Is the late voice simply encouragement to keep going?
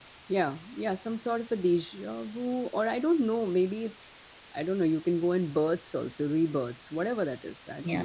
No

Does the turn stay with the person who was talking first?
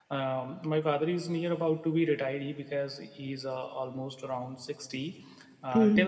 Yes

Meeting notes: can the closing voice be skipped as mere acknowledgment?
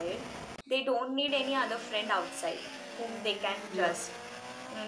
Yes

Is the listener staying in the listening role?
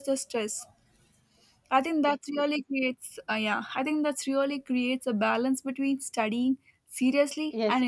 No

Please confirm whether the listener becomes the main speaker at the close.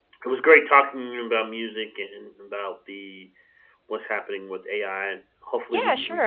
Yes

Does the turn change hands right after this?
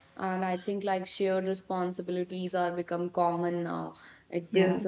No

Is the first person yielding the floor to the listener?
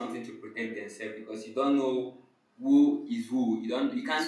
No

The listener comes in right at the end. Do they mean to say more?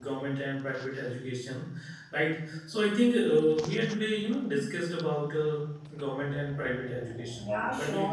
Yes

